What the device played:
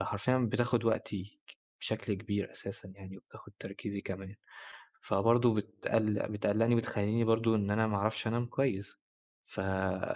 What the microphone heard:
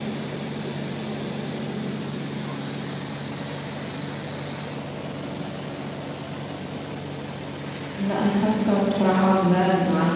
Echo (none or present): none